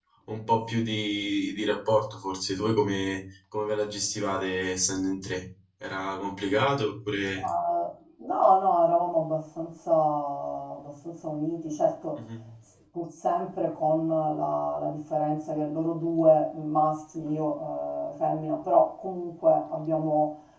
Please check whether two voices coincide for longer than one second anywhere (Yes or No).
No